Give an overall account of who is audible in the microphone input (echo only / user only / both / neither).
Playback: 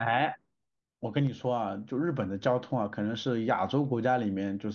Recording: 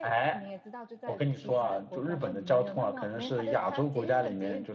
both